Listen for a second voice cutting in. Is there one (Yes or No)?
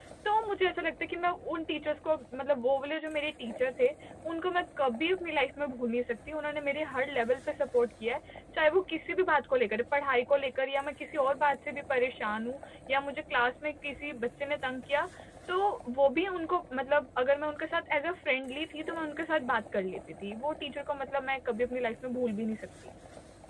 No